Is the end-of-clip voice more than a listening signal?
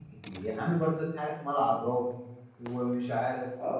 Yes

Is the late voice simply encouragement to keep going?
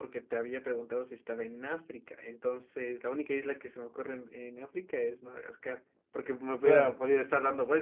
Yes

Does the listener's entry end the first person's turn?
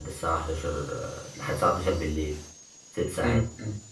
Yes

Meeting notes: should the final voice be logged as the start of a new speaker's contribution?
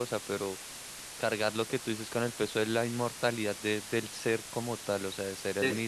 Yes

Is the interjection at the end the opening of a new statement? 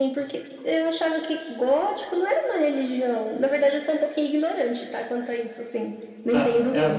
Yes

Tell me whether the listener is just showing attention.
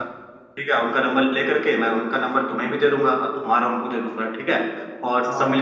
Yes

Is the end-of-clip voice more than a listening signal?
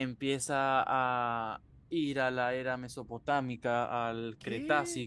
No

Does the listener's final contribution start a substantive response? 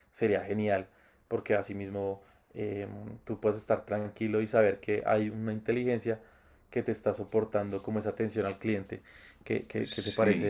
Yes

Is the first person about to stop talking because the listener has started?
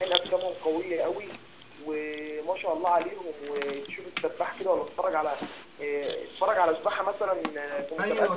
Yes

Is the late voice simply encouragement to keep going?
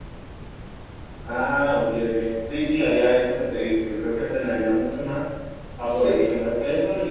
Yes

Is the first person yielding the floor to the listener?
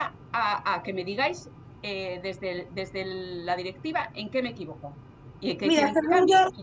Yes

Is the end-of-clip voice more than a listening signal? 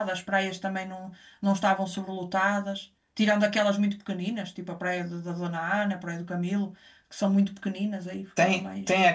Yes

